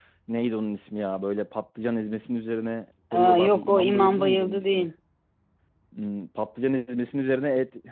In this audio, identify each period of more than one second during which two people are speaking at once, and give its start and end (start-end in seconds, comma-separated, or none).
3.1-4.9